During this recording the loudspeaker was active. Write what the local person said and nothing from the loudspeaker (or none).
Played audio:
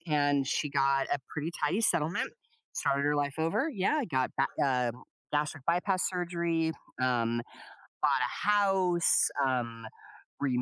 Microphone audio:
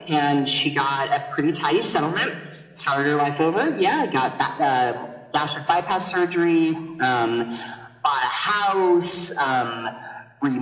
none